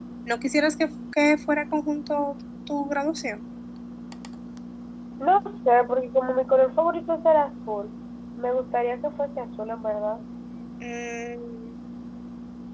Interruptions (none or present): none